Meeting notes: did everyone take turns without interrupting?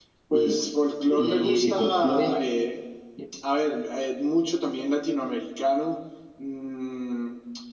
No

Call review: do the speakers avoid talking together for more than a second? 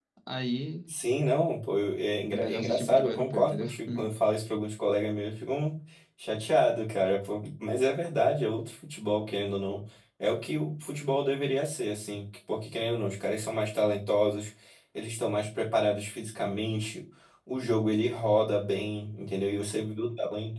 No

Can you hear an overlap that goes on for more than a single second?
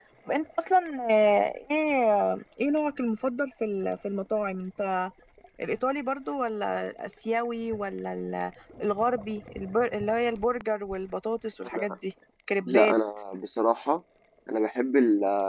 No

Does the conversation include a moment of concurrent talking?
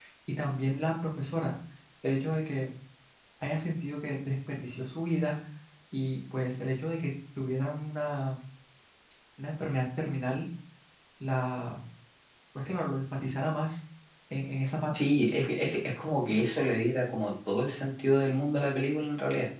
No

